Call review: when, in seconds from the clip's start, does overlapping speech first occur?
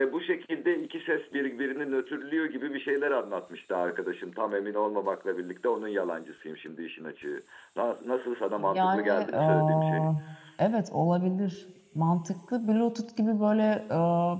9 s

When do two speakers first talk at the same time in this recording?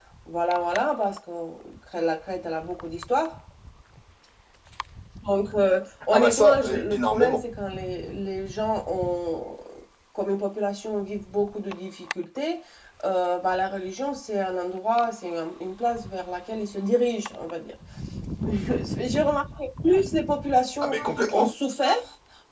6 s

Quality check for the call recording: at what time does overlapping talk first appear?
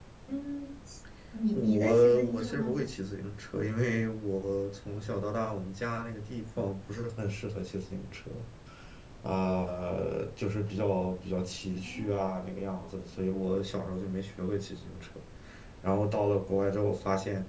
2 s

